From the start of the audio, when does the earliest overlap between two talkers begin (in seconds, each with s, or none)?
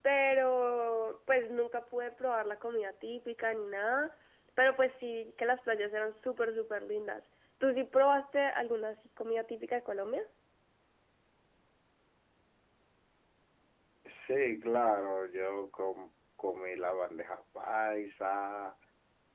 none